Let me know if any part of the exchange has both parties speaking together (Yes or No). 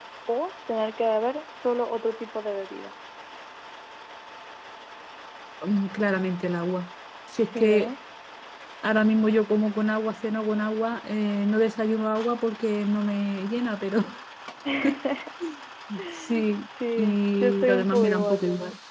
Yes